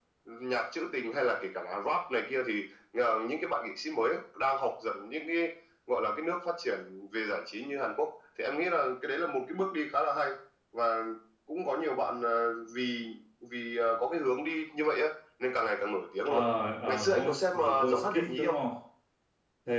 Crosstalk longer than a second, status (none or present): present